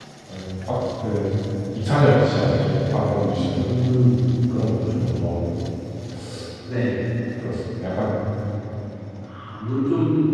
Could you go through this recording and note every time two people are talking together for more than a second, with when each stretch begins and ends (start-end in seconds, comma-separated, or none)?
none